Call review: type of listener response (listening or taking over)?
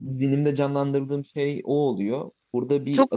taking over